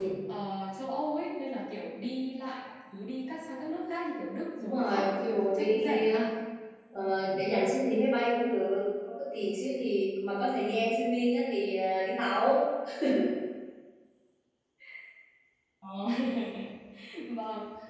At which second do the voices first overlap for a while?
4.6 s

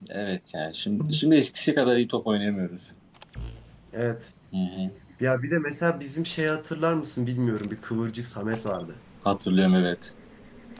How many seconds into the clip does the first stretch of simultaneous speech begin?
none

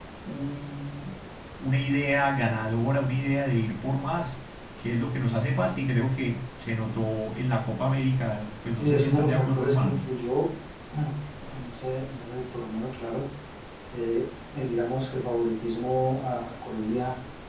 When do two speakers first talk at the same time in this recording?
8.8 s

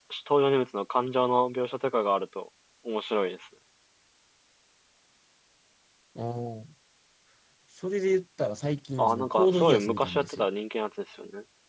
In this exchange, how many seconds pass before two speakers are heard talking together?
9.0 s

